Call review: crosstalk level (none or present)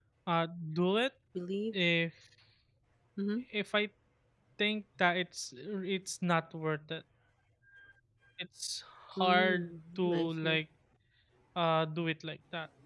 present